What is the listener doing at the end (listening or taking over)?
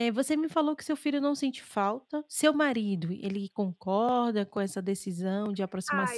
taking over